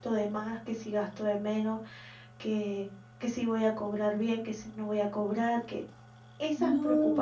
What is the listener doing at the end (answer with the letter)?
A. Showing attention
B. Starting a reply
A